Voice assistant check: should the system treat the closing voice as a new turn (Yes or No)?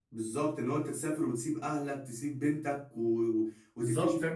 Yes